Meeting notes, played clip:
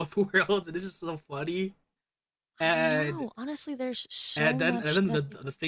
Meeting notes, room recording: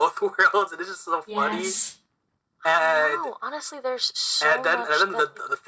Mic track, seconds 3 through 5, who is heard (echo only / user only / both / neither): echo only